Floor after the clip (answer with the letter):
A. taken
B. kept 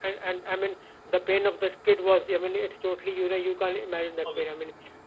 B